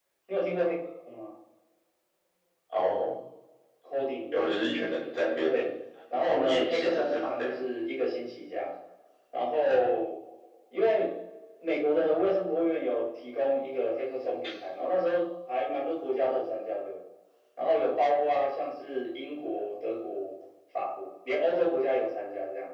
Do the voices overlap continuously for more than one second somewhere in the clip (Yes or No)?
Yes